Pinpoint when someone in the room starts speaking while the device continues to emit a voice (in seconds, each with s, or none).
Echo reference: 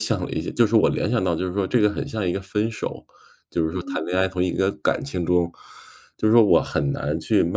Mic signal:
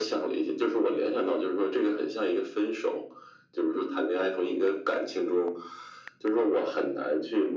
none